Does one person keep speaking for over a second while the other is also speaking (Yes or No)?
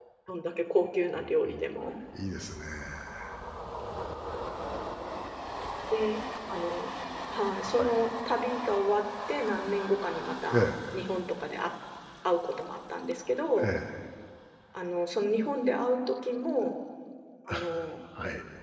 No